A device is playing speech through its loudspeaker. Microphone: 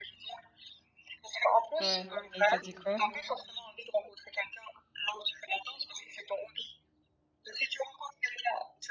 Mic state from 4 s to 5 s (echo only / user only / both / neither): echo only